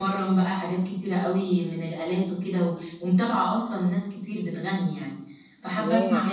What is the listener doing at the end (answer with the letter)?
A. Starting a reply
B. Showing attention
B